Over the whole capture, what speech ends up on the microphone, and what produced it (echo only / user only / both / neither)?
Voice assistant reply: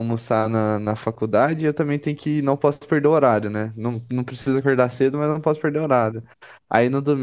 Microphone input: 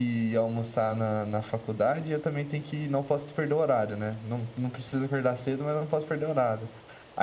echo only